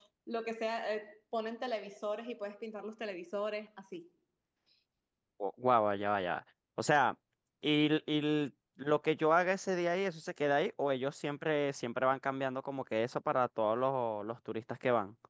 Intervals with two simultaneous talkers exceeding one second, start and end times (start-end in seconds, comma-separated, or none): none